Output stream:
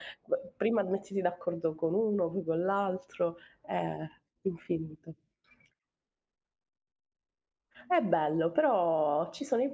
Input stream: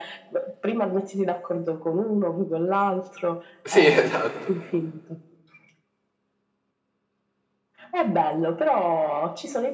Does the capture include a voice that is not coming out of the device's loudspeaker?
Yes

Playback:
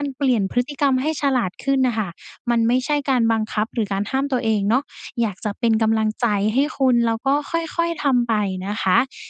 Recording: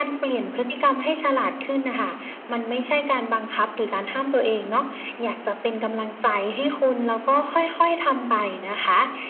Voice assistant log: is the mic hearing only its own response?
Yes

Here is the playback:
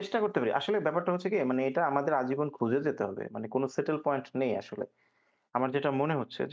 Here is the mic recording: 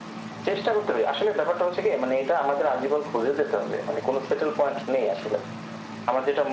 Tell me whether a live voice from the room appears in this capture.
No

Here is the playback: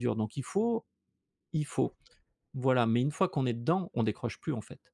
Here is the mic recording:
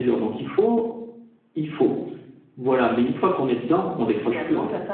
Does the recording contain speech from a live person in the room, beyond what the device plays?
Yes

